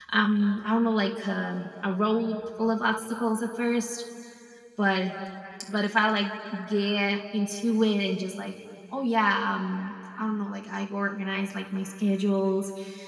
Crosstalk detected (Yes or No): No